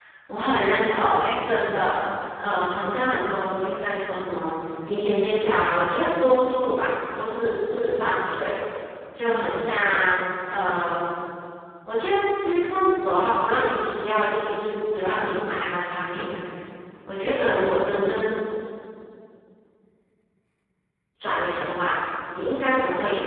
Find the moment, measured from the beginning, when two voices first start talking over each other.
none

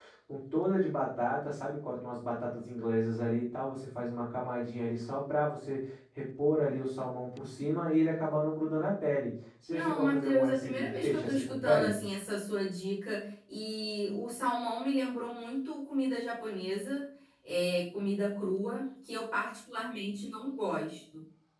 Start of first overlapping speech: 9.7 s

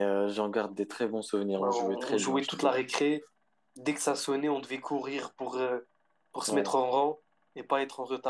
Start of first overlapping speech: 1.6 s

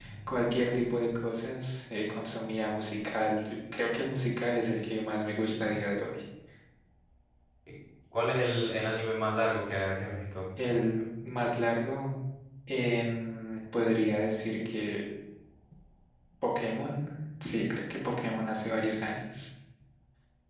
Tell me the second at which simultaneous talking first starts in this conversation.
none

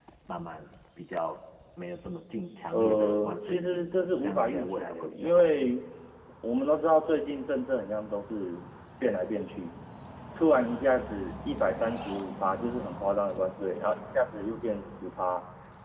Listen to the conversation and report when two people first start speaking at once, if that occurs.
2.7 s

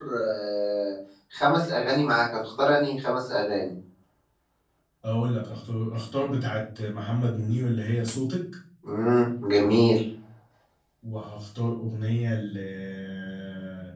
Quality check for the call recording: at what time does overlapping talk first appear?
none

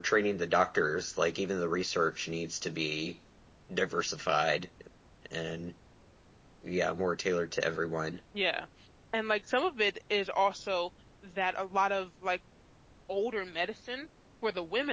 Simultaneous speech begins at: none

